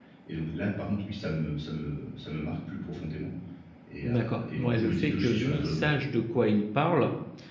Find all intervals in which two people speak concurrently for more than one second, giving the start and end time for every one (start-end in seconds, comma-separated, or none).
4.0-5.9